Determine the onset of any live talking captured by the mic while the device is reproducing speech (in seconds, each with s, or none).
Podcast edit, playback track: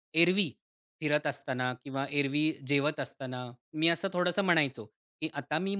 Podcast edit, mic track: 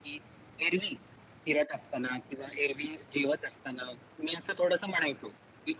none